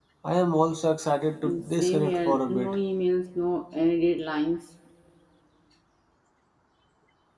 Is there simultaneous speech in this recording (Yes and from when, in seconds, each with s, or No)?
Yes, from 1.4 s